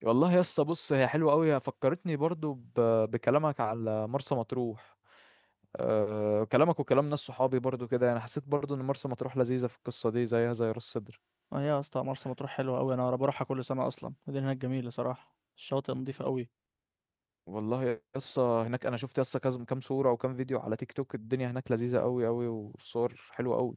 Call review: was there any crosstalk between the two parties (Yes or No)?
No